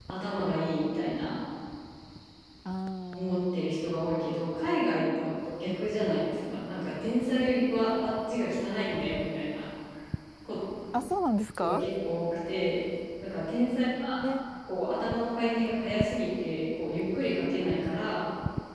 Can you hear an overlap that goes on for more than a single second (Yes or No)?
No